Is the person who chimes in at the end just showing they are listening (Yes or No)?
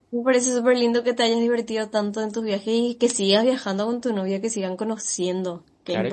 No